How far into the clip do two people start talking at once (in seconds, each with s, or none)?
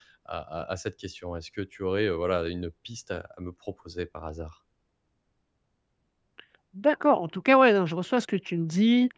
none